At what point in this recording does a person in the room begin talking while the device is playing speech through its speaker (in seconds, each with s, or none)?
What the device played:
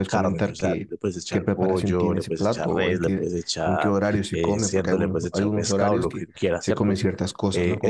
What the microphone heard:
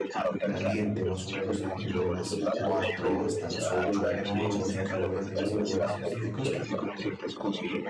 0.4 s